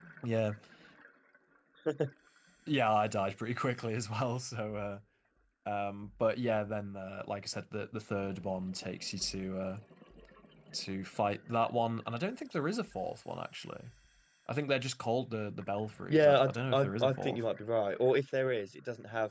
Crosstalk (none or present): present